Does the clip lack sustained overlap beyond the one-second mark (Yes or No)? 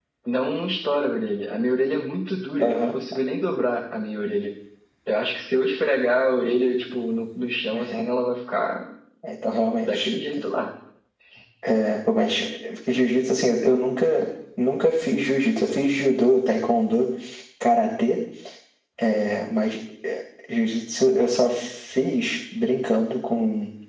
Yes